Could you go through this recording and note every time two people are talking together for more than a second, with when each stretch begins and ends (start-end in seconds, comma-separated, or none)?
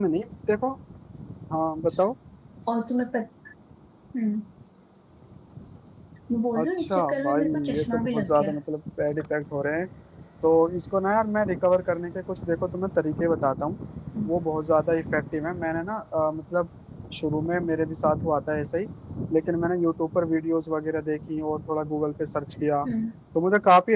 6.6-8.6